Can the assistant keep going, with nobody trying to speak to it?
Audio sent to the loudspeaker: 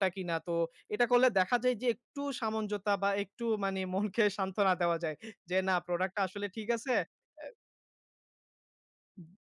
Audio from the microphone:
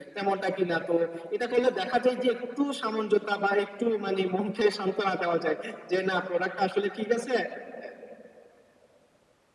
Yes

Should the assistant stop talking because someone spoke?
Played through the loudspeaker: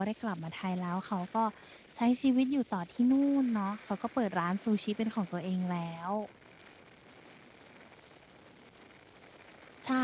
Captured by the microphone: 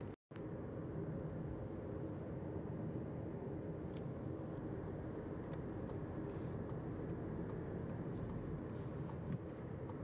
No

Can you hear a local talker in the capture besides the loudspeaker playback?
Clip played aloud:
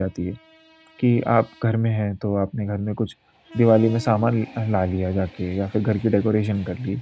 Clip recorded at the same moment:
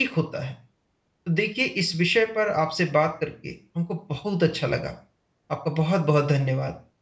Yes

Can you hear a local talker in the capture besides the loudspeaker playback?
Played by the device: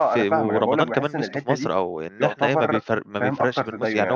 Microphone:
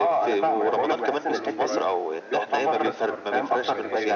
Yes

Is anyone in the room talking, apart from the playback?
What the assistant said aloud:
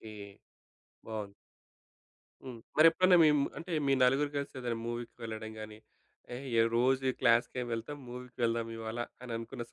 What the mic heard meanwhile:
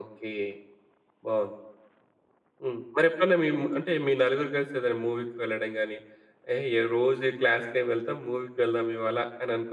No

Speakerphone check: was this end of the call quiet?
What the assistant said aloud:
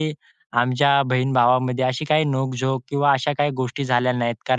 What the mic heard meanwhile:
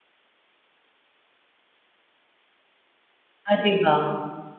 No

